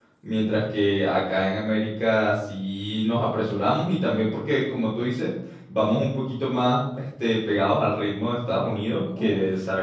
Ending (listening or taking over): listening